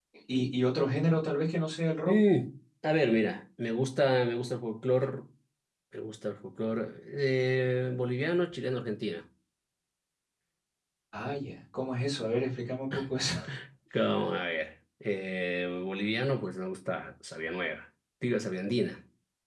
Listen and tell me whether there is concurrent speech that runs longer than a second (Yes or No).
No